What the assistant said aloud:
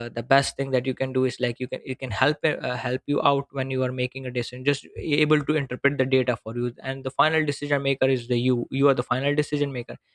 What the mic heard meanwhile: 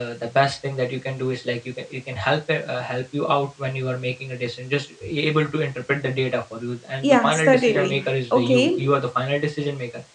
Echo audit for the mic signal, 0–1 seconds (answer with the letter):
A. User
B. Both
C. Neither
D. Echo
D